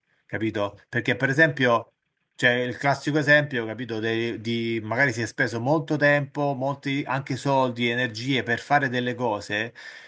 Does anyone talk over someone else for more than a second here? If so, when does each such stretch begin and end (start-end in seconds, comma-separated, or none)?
none